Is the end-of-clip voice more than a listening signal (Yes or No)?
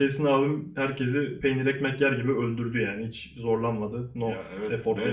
Yes